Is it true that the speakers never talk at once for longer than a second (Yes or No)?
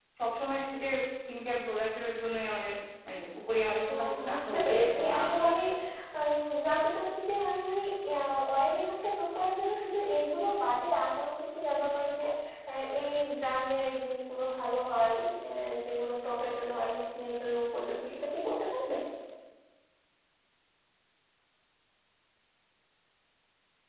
No